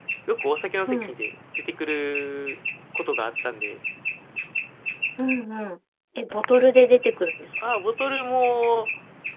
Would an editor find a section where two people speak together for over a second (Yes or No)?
No